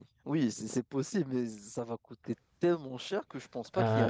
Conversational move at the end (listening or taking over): taking over